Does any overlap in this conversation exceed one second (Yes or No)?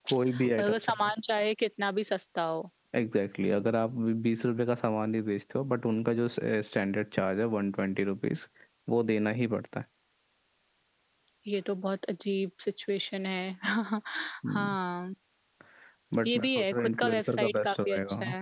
Yes